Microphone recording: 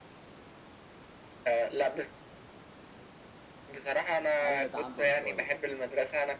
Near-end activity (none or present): present